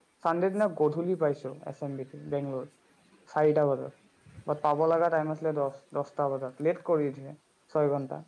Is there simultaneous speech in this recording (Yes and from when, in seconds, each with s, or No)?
No